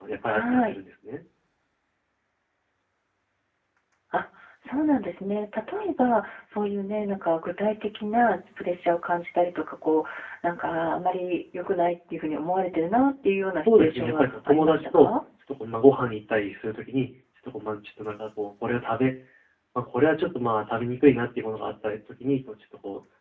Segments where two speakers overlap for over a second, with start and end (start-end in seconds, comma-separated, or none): 13.7-15.1